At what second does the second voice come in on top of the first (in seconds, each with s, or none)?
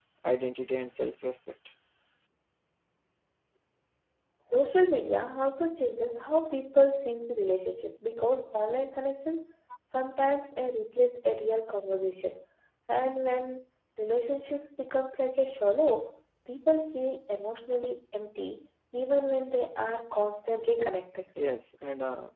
none